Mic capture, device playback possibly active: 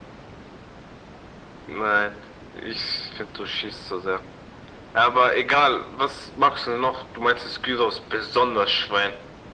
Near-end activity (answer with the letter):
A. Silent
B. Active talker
A